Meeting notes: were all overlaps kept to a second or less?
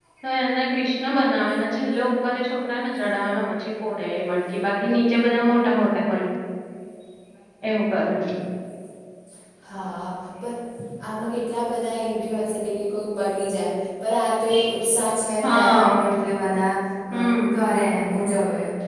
Yes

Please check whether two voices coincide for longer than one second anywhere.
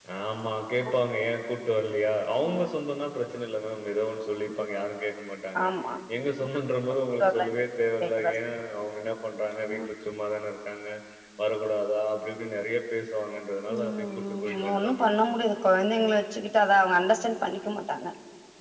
Yes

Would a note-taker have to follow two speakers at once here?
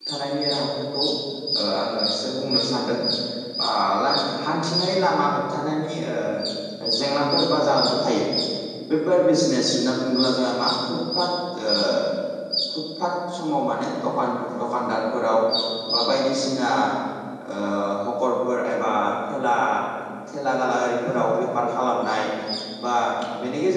No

